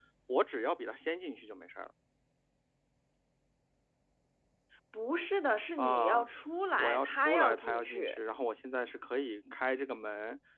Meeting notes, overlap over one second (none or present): present